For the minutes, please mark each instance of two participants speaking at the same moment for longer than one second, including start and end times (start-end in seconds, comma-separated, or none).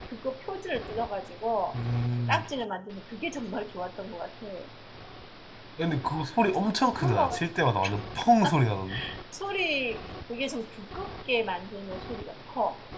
none